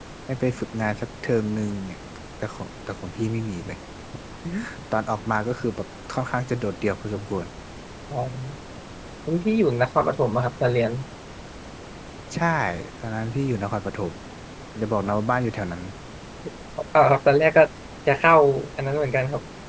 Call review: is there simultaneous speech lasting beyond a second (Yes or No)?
No